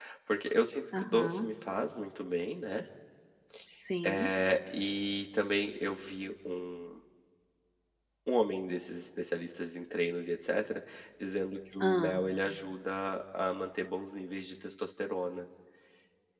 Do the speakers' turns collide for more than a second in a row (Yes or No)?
No